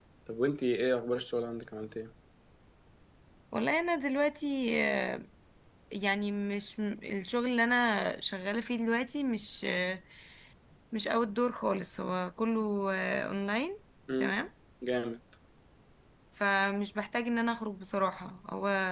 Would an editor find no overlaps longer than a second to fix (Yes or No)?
Yes